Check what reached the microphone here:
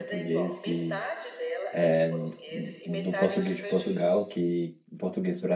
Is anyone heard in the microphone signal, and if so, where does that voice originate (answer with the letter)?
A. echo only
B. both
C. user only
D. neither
B